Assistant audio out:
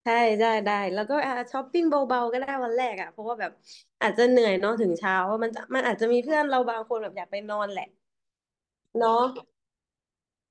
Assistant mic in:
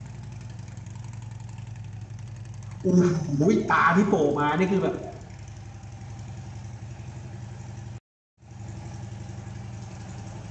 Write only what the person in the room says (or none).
โอ้โหตาที่โผล่มานี่คือแบบ